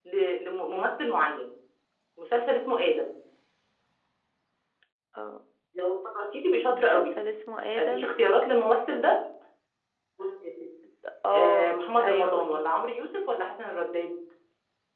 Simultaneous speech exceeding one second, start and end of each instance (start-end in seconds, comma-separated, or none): 11.3-12.8